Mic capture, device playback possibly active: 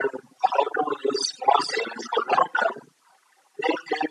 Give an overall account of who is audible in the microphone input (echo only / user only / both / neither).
echo only